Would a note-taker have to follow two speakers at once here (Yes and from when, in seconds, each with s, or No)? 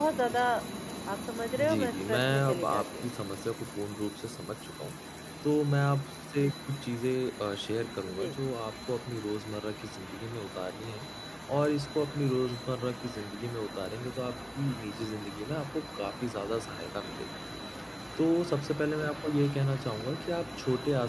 Yes, from 1.6 s